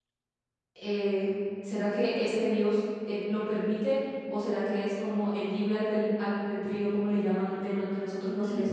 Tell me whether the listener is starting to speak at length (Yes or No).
No